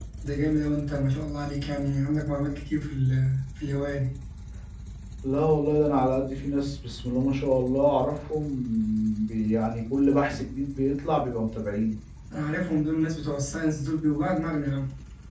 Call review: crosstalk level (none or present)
none